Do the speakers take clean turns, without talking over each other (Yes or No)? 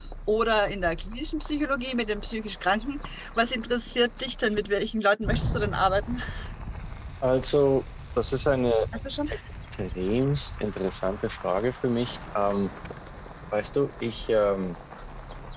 Yes